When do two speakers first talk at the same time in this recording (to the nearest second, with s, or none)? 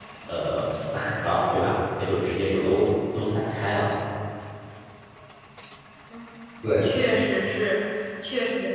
none